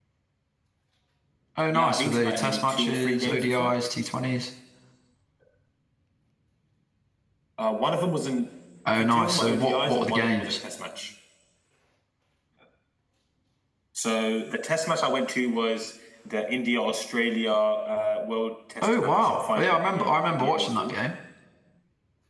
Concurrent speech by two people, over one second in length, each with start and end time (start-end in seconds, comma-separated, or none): 1.7-3.7, 8.9-10.6, 18.8-20.9